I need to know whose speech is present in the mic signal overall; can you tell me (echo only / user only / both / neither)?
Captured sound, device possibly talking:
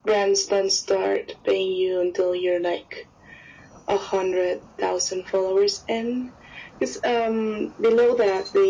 echo only